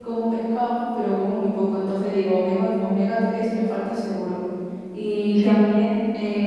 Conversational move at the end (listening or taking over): listening